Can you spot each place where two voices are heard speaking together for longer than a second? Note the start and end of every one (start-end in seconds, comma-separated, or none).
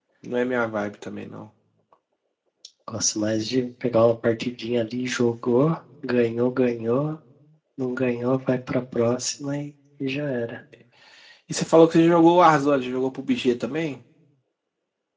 none